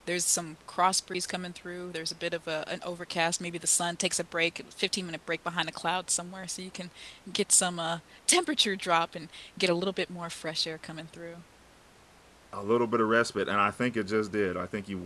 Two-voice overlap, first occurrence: none

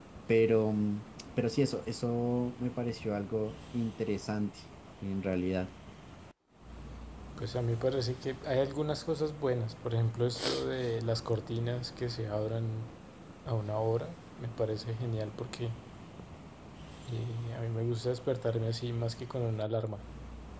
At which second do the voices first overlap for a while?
none

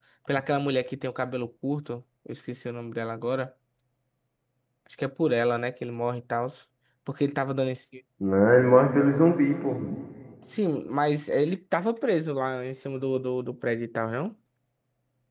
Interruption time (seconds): none

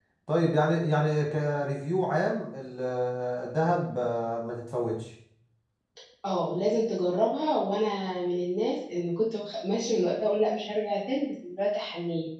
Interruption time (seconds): none

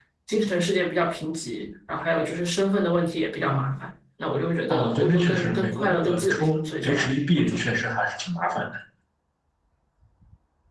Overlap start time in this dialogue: 5 s

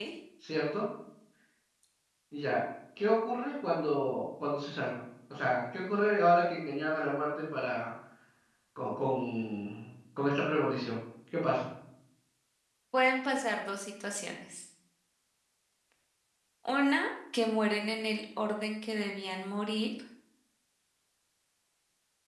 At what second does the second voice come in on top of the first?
none

